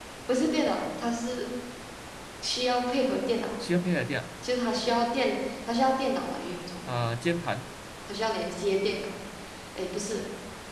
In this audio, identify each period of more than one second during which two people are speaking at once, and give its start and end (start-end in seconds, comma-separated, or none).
none